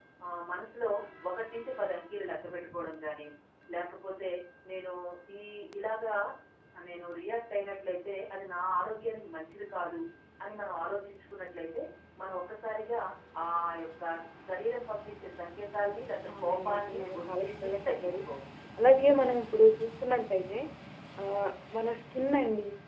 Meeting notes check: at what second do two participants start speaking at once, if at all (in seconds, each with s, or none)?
16.2 s